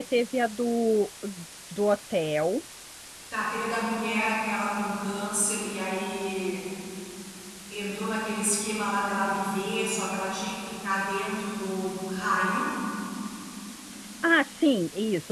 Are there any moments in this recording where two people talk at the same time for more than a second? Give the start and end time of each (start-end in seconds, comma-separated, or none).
none